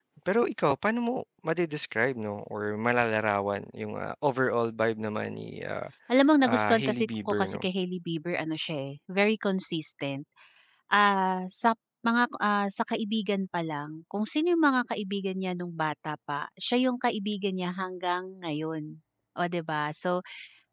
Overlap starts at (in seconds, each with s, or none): 6.4 s